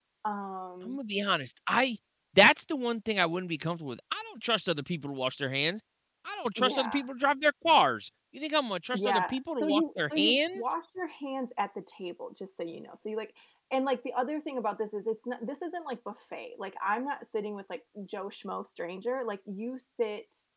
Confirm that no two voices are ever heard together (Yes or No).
No